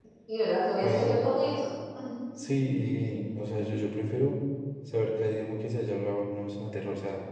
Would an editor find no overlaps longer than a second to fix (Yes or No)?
Yes